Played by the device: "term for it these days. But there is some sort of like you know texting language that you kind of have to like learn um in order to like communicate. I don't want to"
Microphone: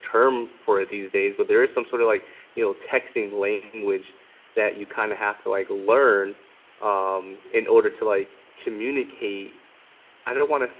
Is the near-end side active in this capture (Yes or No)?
No